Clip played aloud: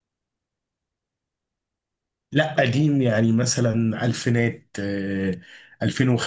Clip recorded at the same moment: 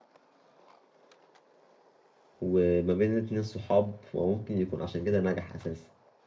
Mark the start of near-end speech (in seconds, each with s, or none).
2.4 s